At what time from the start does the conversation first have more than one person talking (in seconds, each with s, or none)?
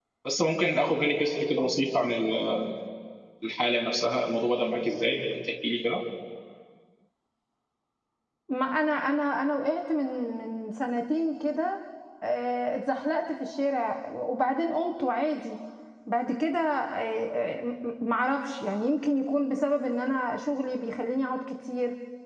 none